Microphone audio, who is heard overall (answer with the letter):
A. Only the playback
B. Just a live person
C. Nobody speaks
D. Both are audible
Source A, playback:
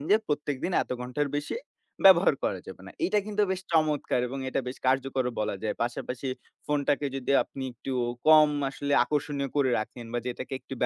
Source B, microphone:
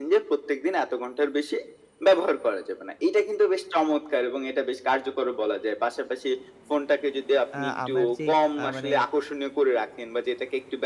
D